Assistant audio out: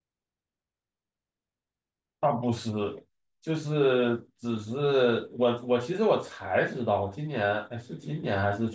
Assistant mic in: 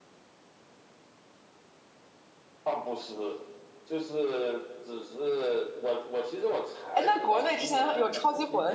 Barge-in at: 6.9 s

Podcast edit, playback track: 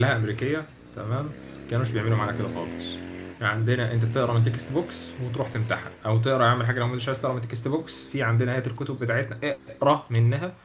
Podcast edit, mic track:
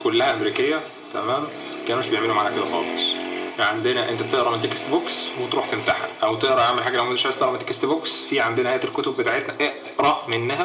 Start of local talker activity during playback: none

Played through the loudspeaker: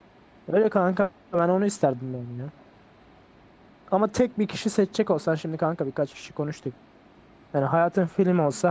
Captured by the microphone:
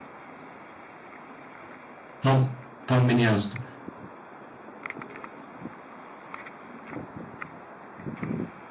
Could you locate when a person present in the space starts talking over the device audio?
2.2 s

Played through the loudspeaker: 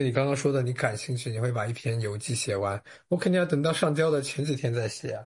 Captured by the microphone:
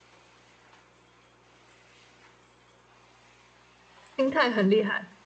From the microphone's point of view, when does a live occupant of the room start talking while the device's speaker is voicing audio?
4.2 s

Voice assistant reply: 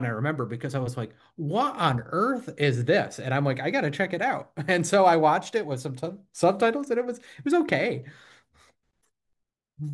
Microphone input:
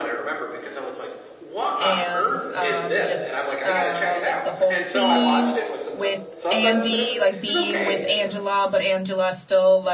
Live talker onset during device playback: 1.7 s

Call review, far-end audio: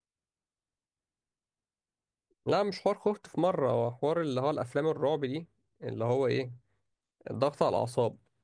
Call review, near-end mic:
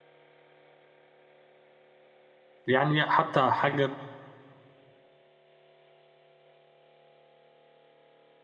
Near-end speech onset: 2.7 s

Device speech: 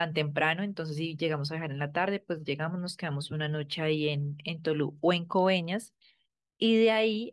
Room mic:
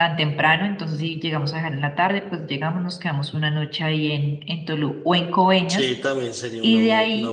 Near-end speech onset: 5.7 s

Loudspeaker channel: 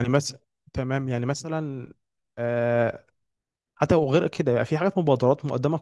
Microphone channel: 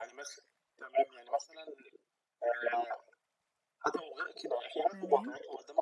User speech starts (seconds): 4.9 s

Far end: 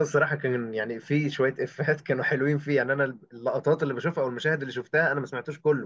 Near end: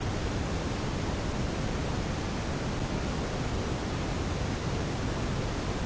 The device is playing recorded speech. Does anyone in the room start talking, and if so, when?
none

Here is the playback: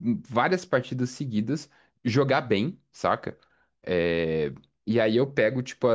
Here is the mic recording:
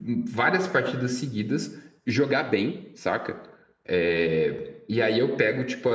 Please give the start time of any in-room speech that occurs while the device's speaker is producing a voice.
none

